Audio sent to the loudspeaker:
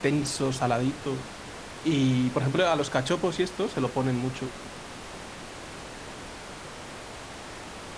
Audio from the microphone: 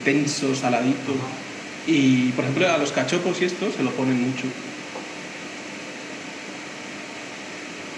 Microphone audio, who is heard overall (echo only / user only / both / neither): both